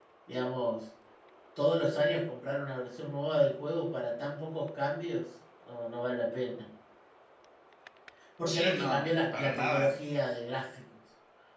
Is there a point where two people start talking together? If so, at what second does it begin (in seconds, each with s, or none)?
8.4 s